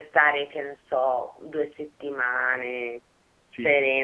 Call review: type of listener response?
listening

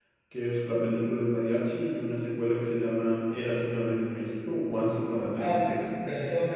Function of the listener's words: taking over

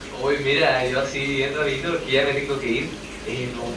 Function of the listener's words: listening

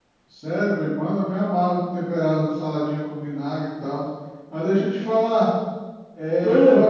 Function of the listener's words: listening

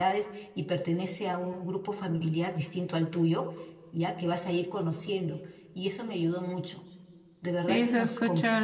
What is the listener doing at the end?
taking over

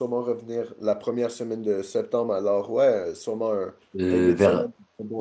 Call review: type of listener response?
taking over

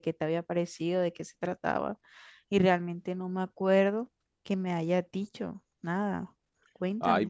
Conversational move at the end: taking over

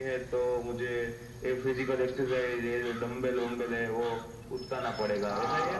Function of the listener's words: taking over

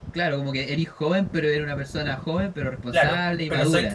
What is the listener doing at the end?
taking over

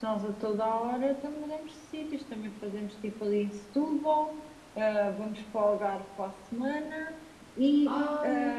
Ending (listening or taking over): listening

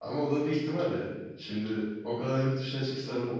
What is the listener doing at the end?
listening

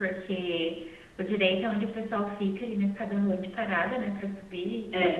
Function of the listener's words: listening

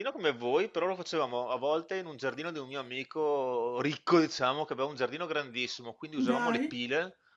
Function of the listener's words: listening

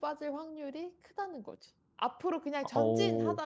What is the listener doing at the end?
listening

